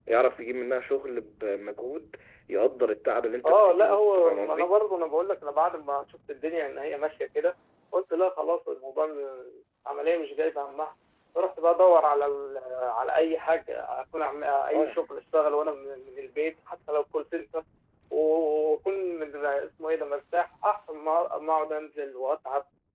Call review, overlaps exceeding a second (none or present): present